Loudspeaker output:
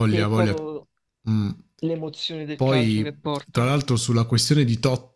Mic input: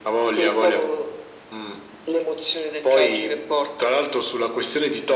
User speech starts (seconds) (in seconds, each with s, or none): none